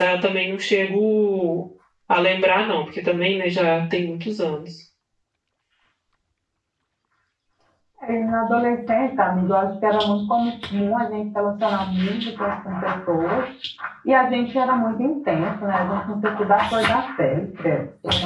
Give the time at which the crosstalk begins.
none

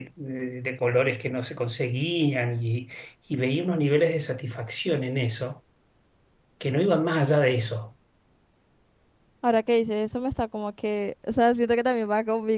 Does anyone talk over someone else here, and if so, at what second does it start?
none

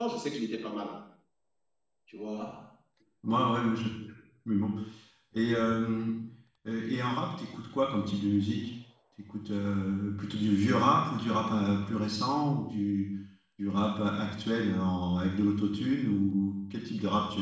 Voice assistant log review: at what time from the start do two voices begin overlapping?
none

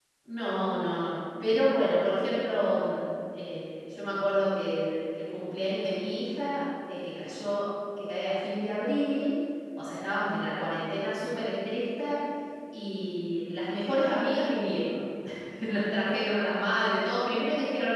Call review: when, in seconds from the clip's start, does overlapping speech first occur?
none

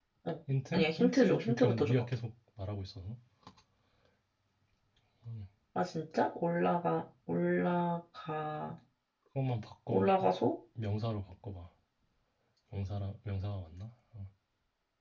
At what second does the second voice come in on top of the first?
0.7 s

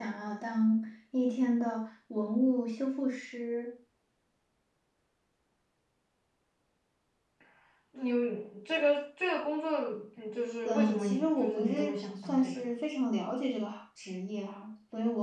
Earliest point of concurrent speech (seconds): 10.7 s

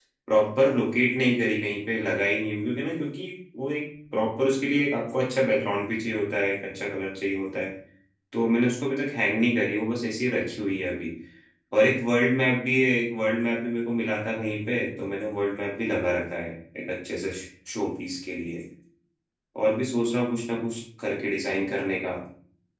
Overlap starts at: none

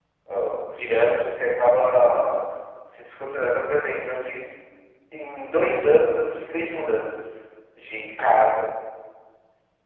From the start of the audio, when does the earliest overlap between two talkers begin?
none

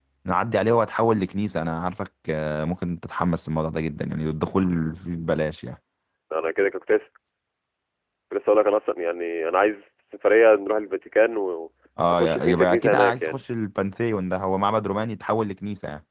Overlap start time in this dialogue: 12.1 s

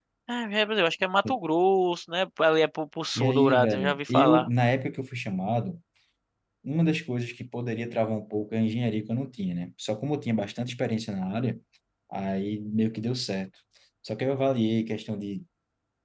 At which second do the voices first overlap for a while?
3.1 s

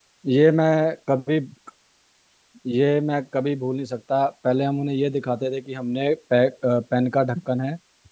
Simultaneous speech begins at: none

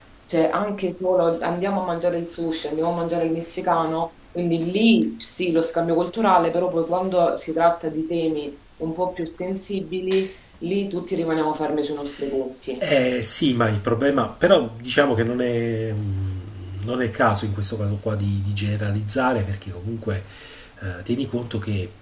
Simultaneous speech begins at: none

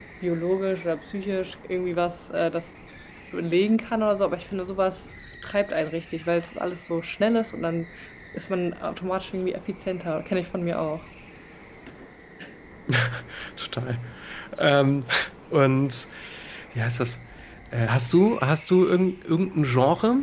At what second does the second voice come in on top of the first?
none

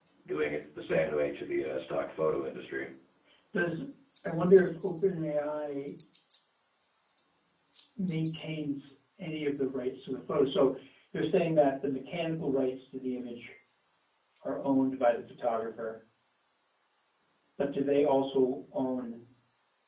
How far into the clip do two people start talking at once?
none

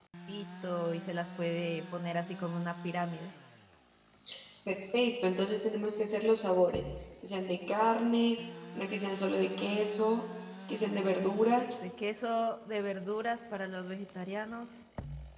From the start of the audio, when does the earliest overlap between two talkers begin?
none

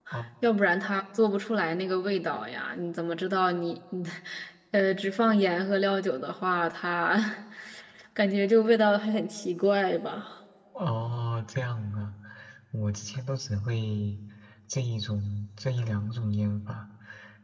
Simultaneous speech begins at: none

